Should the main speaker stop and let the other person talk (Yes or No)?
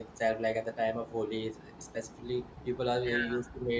No